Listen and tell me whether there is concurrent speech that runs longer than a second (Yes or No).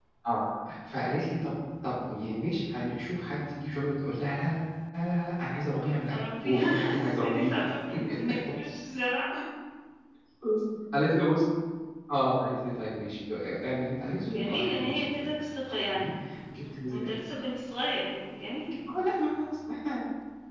Yes